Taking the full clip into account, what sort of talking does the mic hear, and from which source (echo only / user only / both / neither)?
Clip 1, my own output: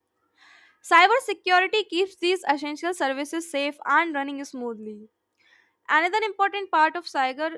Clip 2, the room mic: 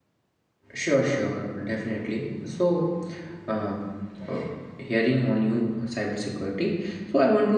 user only